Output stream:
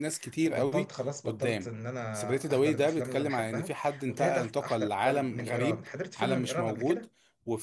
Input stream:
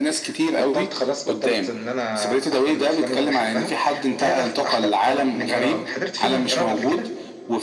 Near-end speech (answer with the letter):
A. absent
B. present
A